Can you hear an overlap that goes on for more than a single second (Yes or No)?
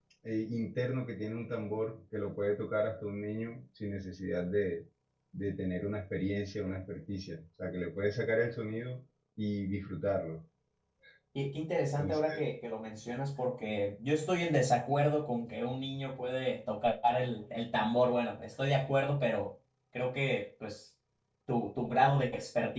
No